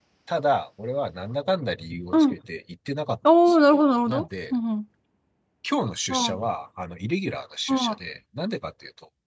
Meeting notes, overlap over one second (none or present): none